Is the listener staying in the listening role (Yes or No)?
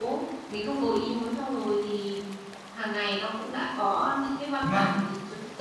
Yes